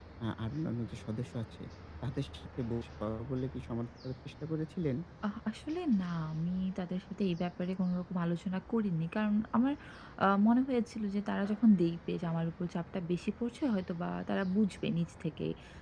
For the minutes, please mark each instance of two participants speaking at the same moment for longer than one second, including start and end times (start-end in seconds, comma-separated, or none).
none